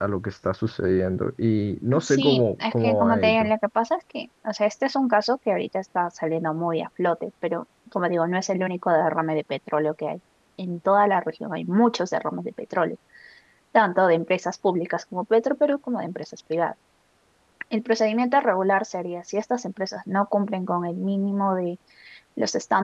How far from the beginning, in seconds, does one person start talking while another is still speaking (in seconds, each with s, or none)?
1.9 s